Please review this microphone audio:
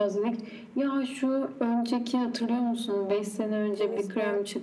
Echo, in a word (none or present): present